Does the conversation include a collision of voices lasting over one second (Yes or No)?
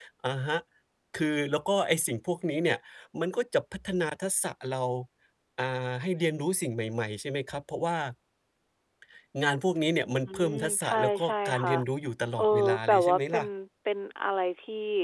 Yes